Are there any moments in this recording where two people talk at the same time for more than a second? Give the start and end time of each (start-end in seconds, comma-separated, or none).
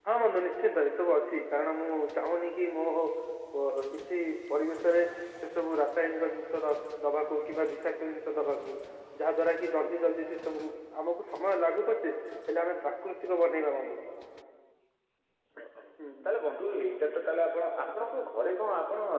none